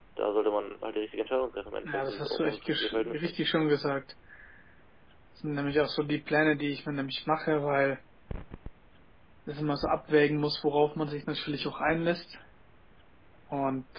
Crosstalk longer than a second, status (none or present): present